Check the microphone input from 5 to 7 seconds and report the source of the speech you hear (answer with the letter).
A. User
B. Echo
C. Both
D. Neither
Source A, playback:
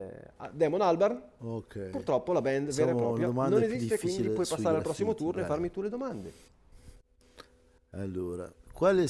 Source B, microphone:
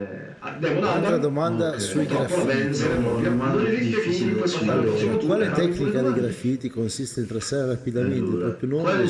C